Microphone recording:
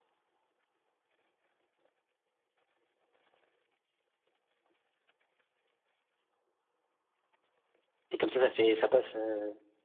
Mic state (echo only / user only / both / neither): user only